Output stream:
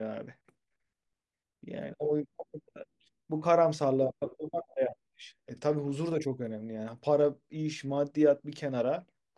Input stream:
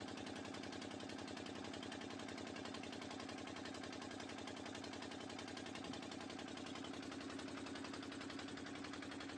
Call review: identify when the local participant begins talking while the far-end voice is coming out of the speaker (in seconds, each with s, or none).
none